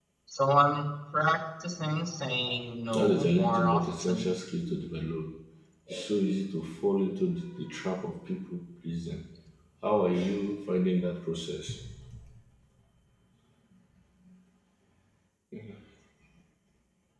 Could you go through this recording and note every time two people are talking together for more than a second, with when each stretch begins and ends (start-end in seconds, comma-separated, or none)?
2.9-4.3